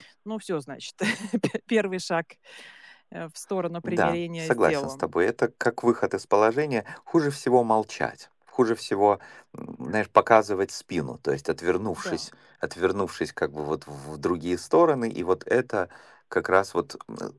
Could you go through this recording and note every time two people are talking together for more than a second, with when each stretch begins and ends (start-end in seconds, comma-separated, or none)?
3.8-5.1